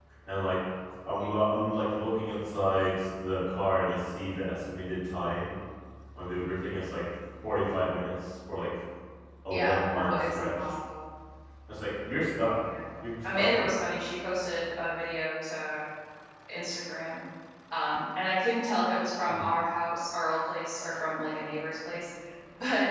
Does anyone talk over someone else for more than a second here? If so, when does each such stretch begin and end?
9.5-10.7

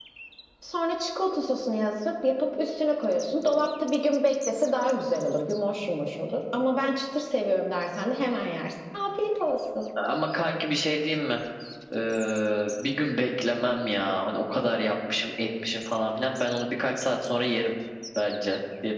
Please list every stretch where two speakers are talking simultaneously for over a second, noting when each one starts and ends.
none

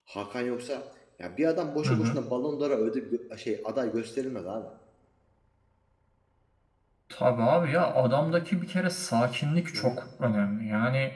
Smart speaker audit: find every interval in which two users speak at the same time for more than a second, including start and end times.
none

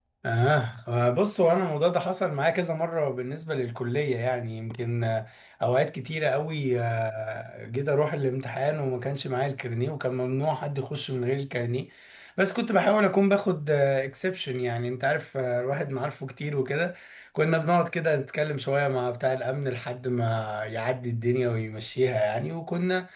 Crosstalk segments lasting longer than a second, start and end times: none

